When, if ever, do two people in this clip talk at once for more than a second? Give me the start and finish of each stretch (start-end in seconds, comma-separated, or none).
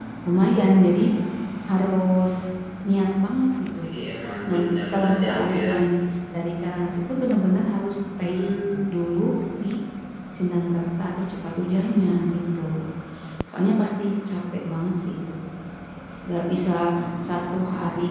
4.5-5.8